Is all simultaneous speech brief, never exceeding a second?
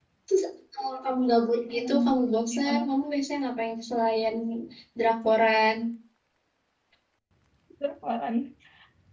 Yes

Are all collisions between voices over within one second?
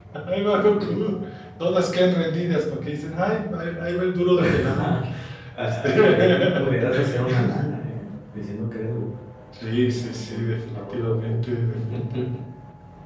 No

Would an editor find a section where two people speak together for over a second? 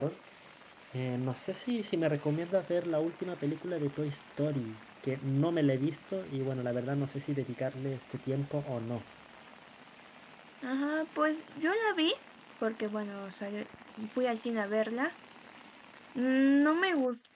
No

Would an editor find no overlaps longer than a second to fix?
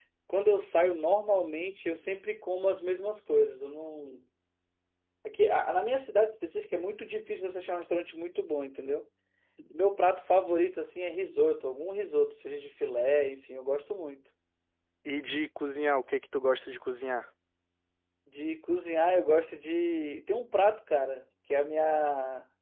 Yes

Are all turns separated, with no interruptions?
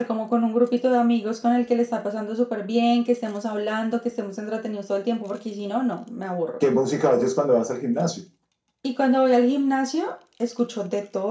Yes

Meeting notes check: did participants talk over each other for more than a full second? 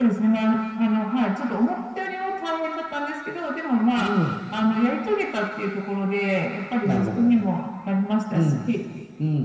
No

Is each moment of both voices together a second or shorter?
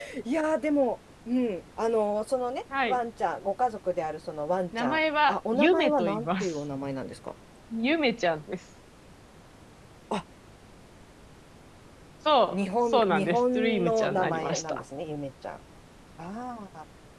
No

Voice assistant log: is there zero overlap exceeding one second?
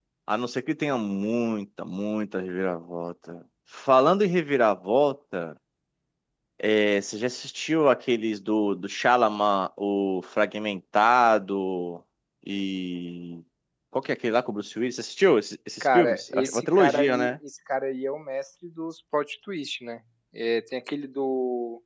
No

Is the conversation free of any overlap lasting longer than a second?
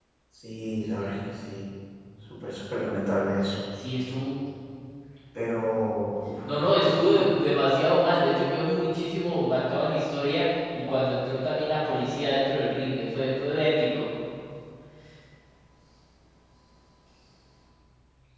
Yes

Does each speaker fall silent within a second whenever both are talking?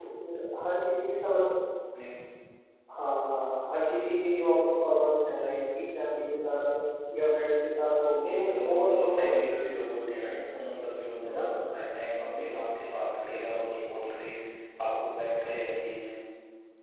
No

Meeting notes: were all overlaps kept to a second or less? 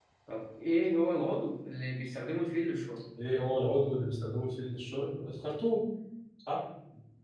Yes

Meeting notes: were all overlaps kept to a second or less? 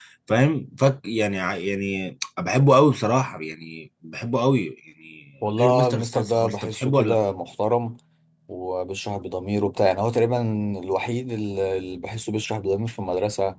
No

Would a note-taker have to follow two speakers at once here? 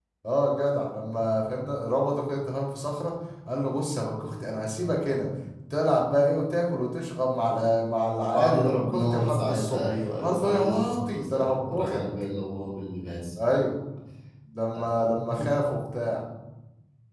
Yes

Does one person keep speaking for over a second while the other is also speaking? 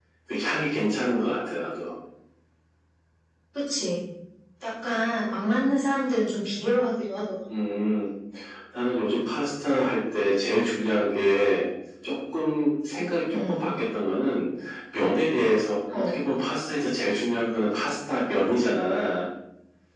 No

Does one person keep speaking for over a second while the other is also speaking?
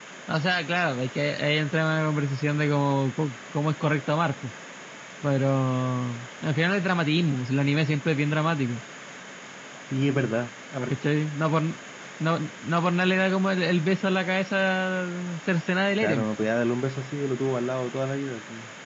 No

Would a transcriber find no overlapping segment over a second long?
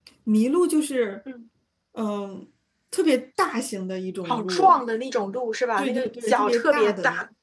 No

